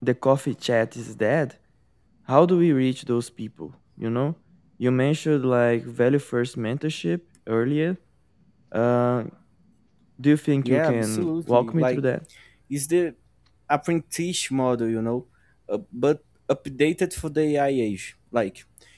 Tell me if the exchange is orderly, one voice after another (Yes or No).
No